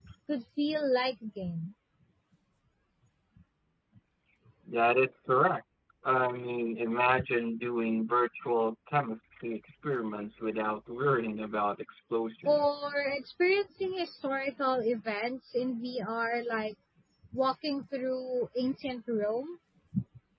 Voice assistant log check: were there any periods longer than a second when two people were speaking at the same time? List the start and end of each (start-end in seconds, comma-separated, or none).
none